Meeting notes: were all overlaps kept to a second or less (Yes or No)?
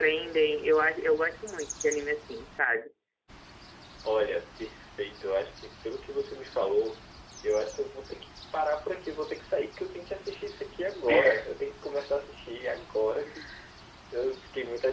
Yes